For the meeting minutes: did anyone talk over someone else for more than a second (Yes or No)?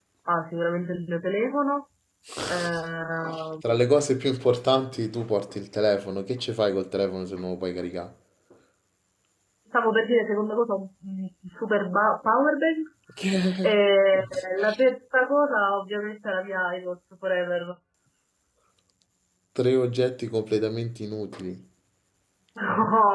No